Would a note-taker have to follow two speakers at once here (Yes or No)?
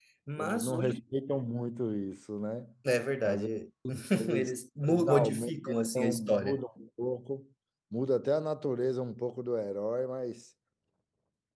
Yes